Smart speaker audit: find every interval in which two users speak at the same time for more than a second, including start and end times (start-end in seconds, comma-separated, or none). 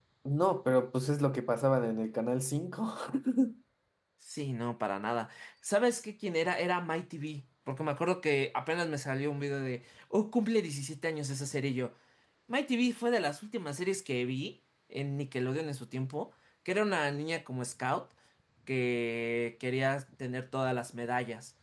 none